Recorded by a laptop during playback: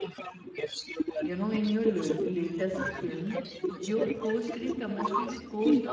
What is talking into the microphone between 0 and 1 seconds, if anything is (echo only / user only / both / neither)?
echo only